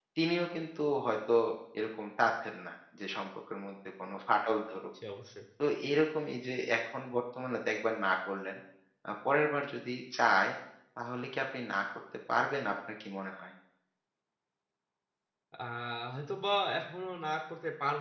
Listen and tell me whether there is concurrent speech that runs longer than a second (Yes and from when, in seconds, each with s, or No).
No